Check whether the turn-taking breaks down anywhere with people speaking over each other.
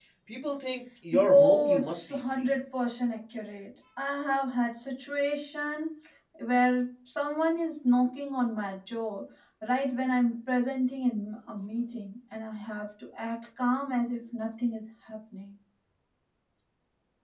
Yes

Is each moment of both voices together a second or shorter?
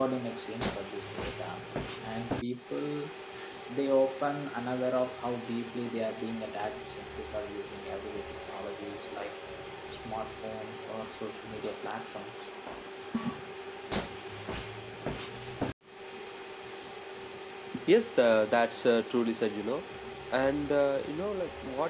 Yes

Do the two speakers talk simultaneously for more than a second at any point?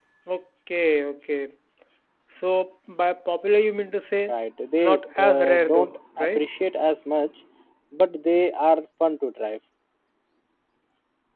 Yes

